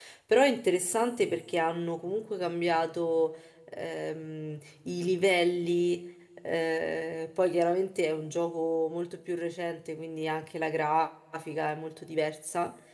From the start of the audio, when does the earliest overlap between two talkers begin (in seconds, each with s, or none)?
none